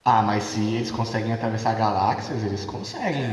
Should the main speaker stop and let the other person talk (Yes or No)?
Yes